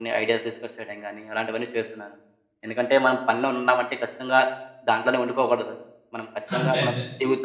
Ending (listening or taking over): listening